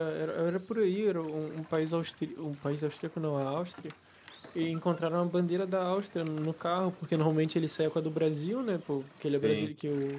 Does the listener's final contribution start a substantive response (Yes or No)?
No